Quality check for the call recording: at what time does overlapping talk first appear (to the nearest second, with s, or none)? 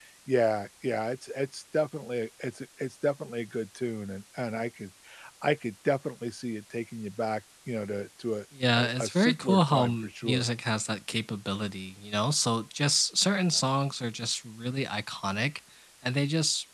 9 s